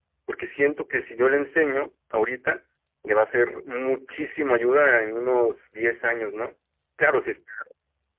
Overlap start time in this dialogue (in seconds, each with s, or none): none